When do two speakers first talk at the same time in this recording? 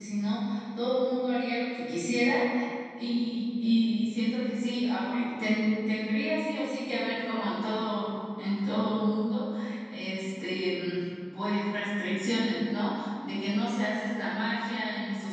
none

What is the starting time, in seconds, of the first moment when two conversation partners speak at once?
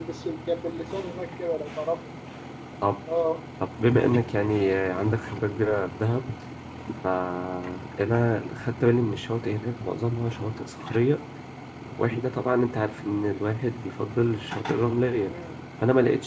none

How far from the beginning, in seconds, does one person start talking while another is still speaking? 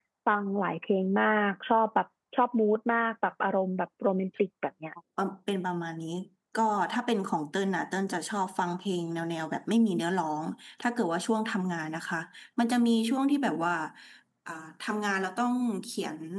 none

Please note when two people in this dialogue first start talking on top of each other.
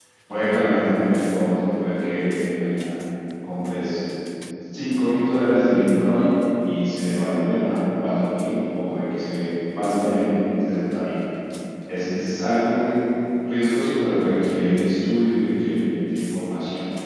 none

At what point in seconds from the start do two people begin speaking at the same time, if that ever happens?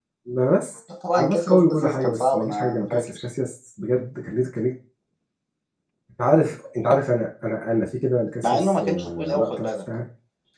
1.2 s

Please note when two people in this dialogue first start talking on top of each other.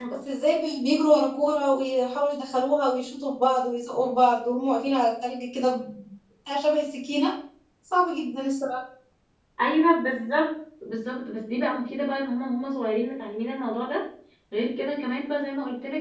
none

